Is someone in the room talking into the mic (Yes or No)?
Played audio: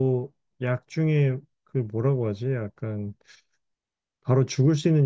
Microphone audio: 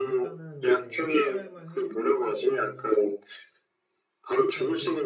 Yes